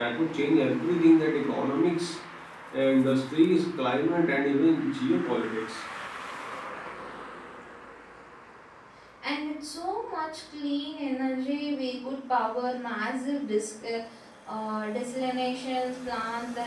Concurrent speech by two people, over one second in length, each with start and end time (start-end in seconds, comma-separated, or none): none